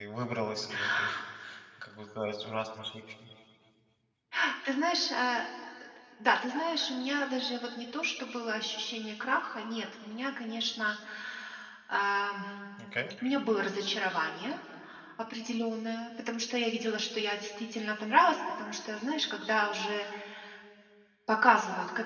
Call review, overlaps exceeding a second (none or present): none